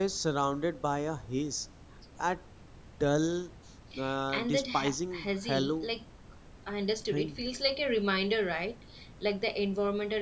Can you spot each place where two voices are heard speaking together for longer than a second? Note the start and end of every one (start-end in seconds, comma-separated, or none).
4.3-5.9